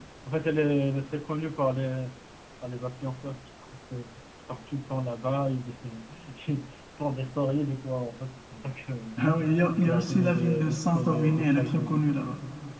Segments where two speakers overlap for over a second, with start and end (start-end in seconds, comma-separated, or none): 9.8-12.1